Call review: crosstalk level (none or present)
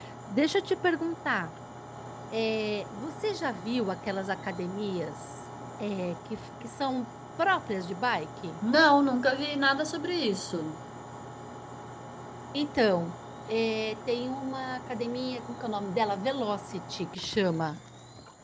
none